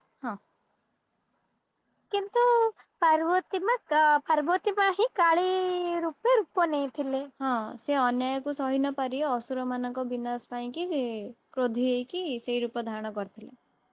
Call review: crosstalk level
none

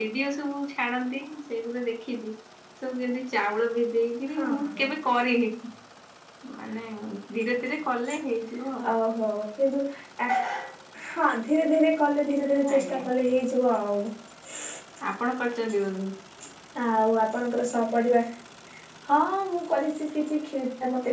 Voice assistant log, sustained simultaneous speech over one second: none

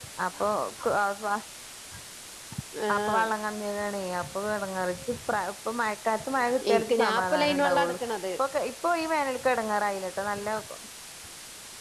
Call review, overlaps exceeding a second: present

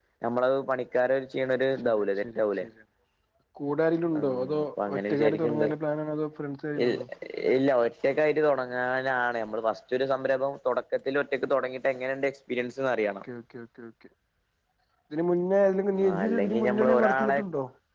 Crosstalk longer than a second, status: present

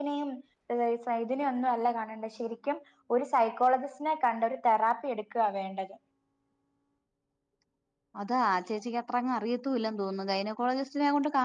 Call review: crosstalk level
none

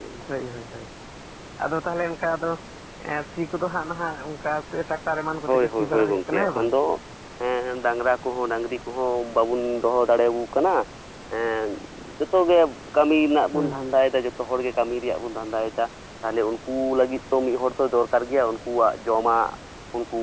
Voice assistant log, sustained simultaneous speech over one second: present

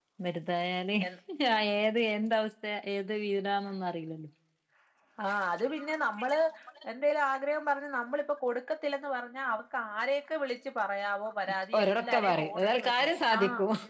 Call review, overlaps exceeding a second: present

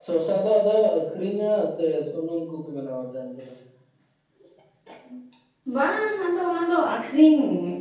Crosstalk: none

